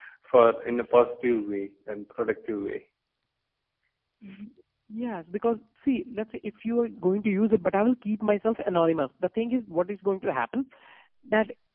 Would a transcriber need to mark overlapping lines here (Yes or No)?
No